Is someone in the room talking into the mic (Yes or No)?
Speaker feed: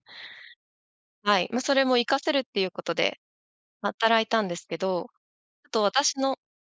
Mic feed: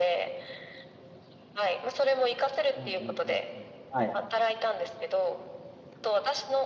Yes